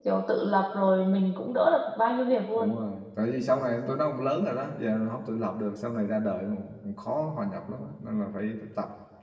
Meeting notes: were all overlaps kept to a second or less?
Yes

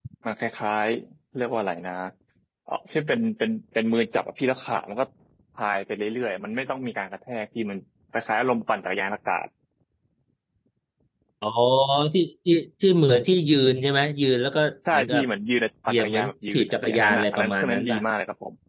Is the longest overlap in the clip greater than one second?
Yes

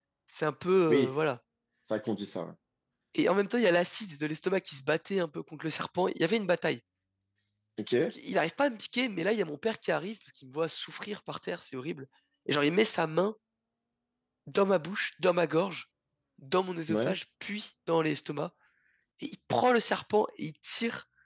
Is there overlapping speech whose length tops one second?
No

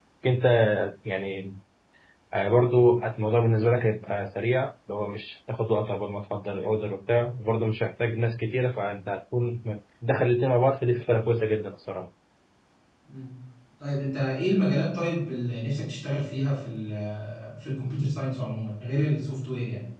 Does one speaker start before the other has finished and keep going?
No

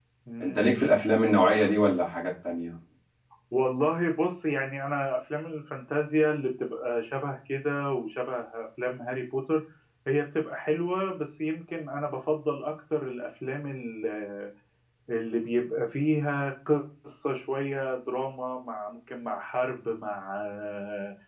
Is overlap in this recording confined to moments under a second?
Yes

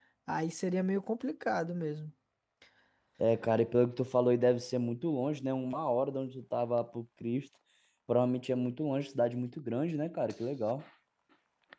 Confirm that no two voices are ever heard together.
Yes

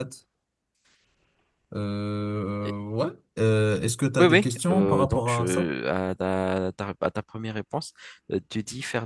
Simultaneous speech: Yes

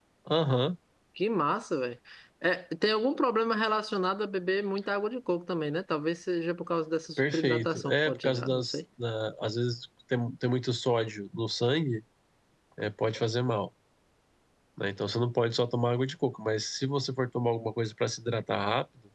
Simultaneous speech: Yes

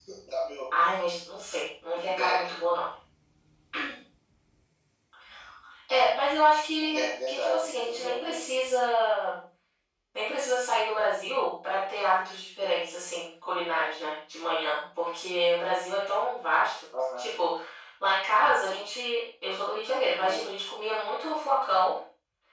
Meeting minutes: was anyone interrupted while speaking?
Yes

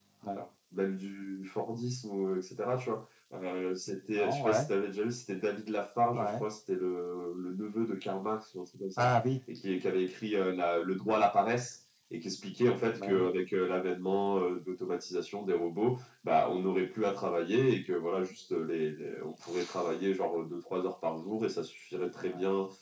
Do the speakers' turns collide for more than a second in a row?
No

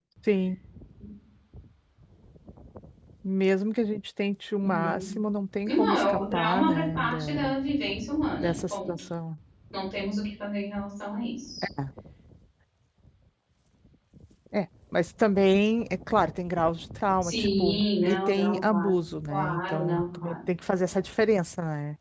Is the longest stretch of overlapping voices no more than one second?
No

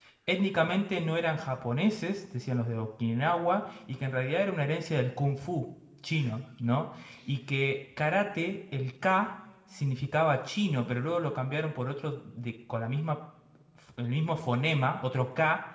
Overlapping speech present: No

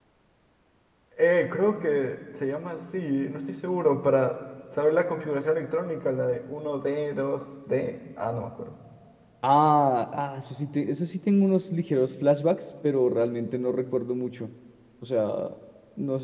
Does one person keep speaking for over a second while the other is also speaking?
No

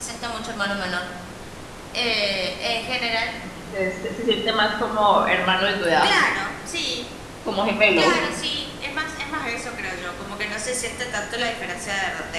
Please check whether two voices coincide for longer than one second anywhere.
No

